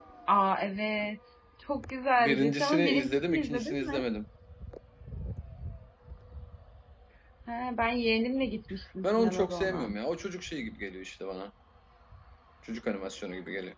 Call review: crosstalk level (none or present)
present